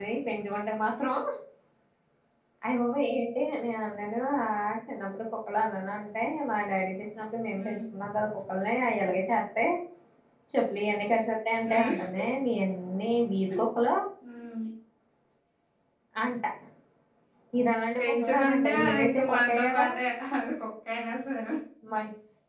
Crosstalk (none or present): present